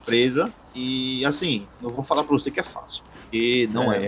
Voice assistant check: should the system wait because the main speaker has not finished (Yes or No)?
Yes